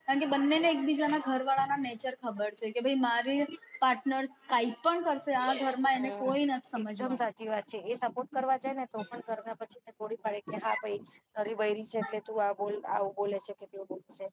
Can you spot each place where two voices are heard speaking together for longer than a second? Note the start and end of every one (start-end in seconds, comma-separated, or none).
none